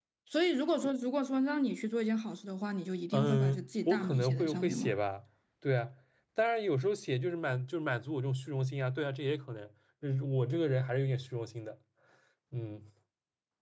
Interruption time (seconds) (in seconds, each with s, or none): 3.1 s